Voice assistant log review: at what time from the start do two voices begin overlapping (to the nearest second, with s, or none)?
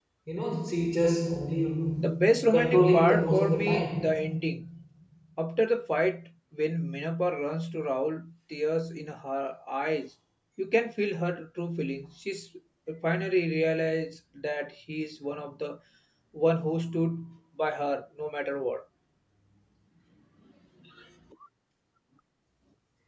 3 s